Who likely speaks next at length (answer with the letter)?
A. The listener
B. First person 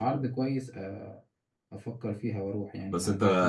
A